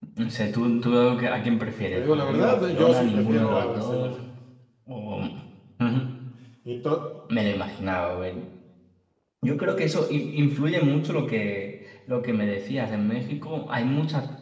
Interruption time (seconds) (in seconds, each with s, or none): 1.9 s